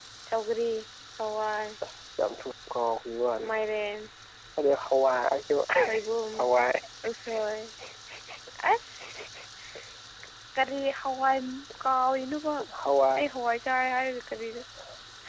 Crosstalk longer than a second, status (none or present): none